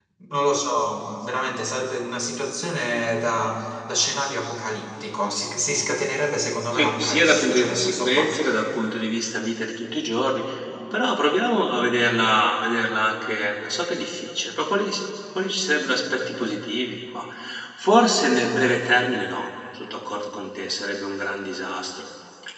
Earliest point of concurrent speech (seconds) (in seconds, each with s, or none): 6.7 s